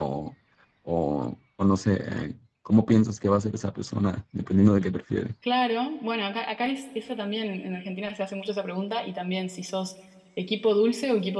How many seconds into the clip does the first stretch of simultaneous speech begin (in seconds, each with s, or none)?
none